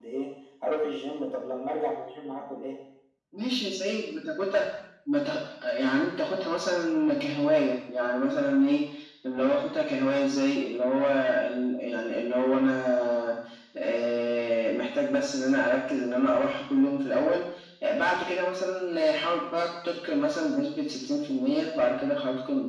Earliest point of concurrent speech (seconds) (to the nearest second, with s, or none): none